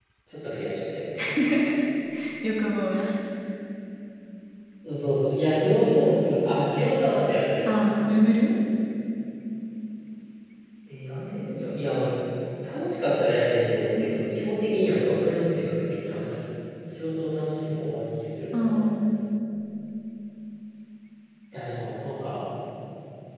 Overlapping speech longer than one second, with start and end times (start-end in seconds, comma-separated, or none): none